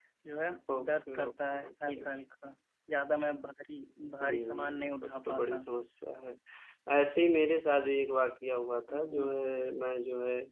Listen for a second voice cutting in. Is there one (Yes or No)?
Yes